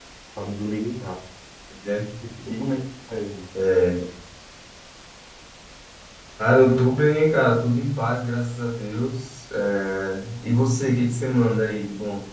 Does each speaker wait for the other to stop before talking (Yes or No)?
Yes